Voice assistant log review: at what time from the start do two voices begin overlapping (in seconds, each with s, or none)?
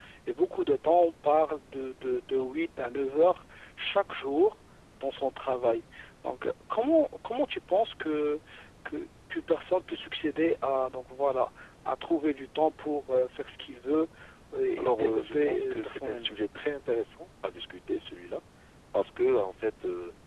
14.8 s